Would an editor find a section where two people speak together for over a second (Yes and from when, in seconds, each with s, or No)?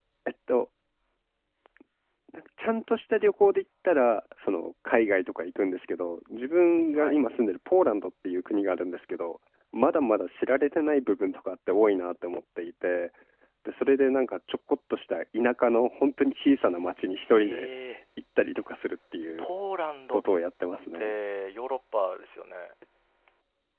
No